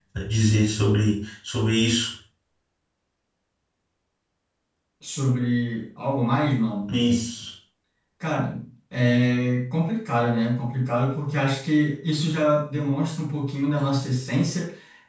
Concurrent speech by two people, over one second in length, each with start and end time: none

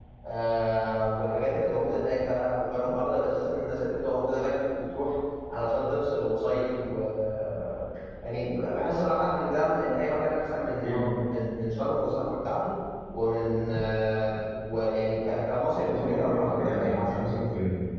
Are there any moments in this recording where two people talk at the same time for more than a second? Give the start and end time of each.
15.8-17.4

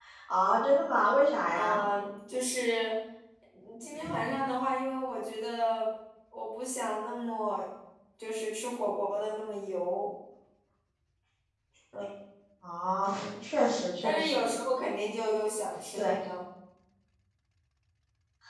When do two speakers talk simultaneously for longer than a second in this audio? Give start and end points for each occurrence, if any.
none

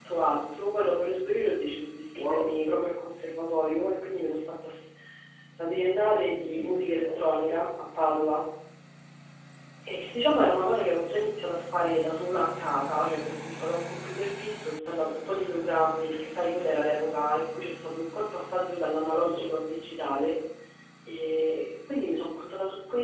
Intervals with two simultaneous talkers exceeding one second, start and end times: 6.1-7.4

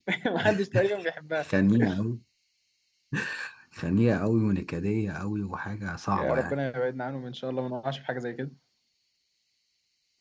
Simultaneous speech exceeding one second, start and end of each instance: none

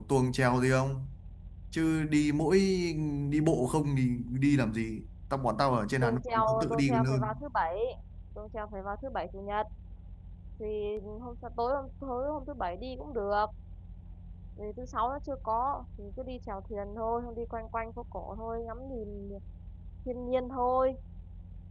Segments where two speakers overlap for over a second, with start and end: 6.0-7.4

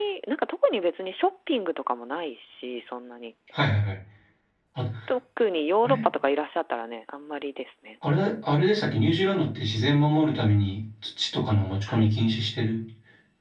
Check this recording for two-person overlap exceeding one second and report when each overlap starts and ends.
none

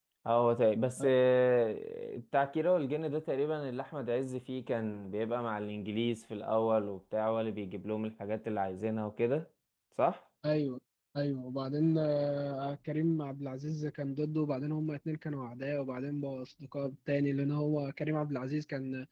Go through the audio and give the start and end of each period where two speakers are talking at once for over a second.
none

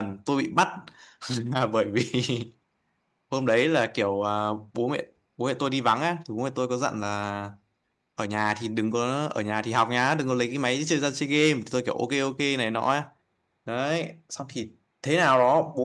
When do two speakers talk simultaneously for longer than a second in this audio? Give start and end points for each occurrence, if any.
none

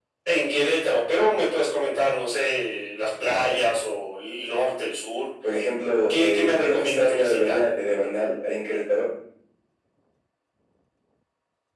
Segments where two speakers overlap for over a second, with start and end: 6.1-7.6

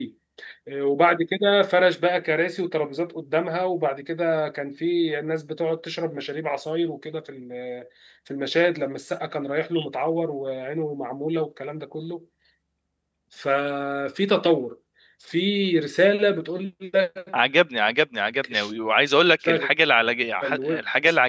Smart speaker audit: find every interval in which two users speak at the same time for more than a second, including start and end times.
none

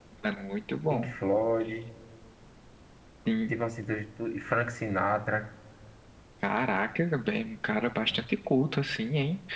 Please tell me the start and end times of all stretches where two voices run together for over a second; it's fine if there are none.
none

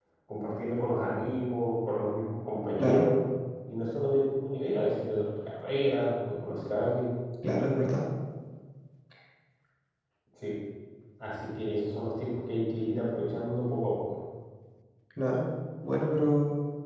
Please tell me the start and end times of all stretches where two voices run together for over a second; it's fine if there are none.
none

